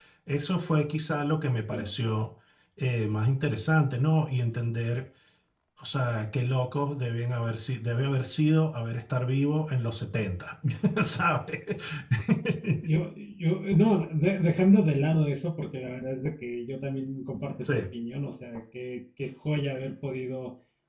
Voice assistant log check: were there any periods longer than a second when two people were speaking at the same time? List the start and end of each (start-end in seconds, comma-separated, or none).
none